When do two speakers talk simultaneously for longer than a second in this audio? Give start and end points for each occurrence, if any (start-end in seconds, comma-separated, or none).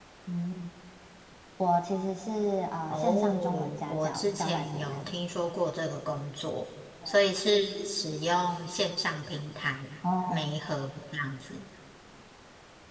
2.9-5.2